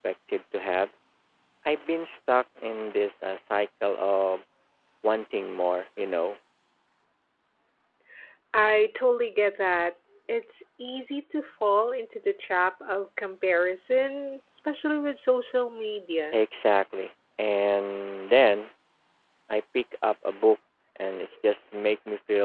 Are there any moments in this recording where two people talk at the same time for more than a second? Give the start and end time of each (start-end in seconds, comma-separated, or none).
none